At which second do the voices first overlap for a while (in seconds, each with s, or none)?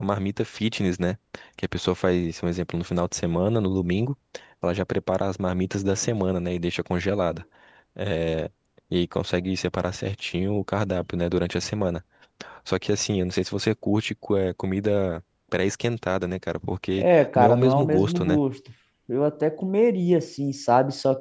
17.0 s